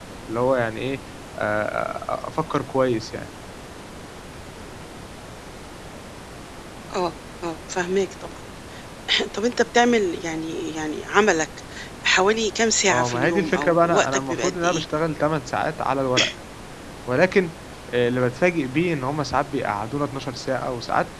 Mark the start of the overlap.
12.9 s

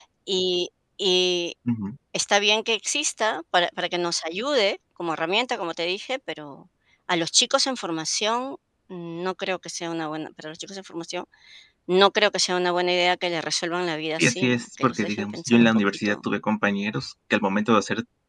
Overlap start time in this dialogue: 14.2 s

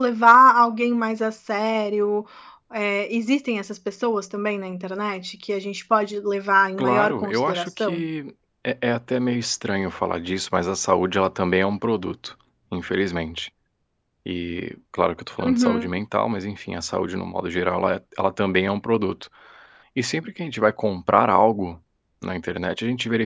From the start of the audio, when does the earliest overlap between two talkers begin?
6.8 s

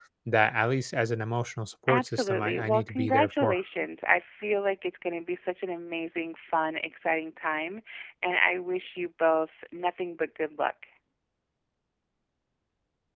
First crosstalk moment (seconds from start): 1.9 s

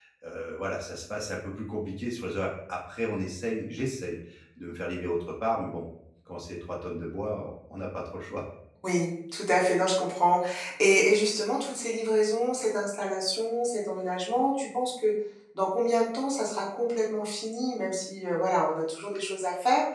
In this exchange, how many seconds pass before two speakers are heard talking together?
none

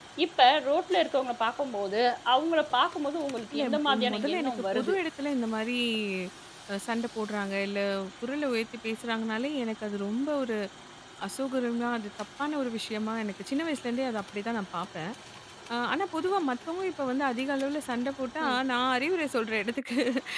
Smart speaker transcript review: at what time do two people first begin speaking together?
3.5 s

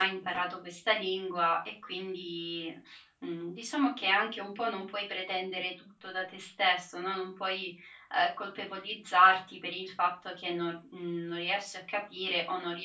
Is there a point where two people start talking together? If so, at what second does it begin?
none

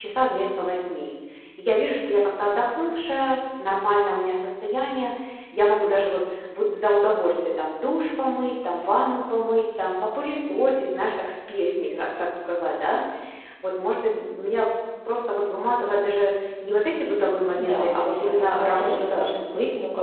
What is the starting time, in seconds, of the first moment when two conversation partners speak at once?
17.6 s

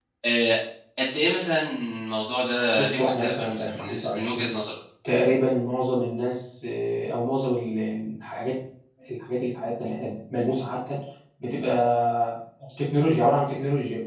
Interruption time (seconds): 2.8 s

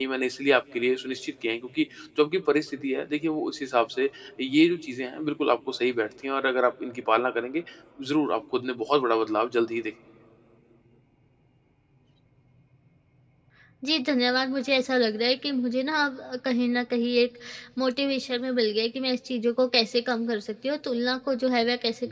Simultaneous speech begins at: none

